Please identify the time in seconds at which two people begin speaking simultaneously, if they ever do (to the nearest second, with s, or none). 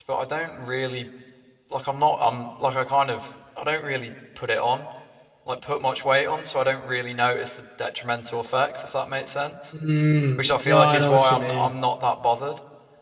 10 s